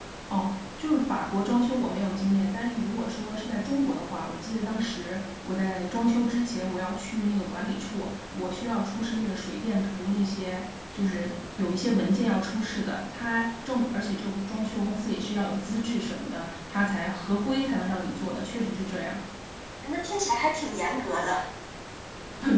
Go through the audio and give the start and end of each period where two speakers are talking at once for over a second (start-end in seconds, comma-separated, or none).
none